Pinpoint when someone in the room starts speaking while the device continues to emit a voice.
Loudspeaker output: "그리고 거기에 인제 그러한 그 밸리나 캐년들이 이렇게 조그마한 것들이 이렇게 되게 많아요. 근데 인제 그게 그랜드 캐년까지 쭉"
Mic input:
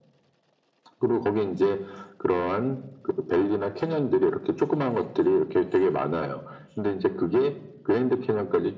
none

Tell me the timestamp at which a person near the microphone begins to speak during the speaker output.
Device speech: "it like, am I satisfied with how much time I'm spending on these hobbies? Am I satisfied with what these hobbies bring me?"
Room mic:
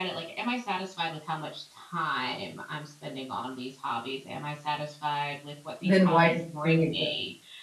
5.8 s

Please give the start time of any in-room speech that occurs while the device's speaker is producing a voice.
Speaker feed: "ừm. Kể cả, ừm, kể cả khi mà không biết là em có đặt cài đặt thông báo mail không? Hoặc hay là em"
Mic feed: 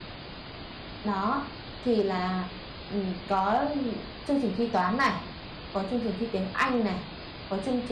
1.0 s

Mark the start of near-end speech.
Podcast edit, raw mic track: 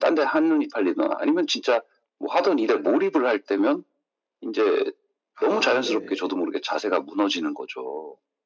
5.3 s

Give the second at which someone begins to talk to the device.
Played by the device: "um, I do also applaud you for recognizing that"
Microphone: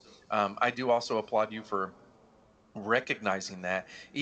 none

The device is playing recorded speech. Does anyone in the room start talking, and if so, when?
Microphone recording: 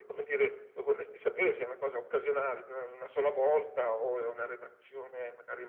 none

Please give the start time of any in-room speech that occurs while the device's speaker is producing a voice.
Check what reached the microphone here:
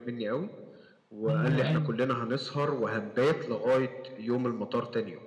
1.3 s

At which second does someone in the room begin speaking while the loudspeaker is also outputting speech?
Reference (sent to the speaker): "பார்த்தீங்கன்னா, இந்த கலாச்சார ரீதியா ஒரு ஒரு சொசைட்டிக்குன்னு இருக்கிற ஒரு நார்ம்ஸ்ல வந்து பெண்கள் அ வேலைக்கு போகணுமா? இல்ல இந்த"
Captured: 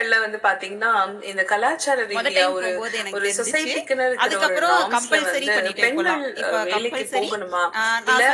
2.1 s

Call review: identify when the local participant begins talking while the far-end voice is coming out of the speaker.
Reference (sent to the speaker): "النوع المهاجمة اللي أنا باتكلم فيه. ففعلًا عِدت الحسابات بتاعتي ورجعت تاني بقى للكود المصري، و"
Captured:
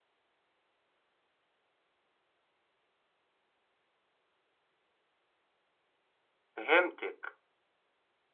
6.5 s

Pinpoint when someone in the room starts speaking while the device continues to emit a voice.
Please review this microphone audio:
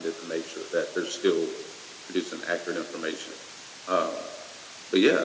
none

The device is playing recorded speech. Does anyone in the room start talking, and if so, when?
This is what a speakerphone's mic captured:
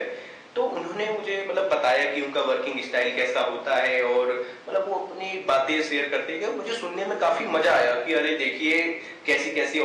none

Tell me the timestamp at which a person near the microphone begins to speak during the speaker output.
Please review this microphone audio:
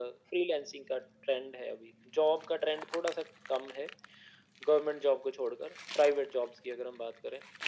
none

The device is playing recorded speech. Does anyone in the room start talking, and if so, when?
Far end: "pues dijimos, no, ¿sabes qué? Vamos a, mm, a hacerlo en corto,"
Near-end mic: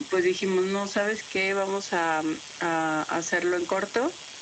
none

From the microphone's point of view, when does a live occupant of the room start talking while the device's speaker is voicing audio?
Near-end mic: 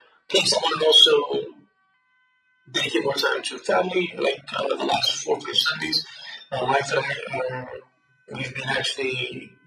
none

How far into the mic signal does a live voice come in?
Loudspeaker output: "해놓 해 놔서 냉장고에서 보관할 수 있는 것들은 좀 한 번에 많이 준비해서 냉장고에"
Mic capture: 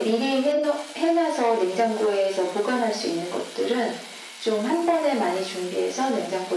none

